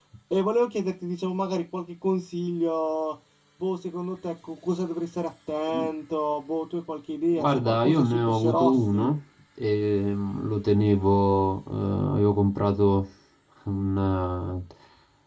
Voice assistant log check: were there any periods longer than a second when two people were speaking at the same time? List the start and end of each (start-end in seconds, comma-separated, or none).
7.4-9.1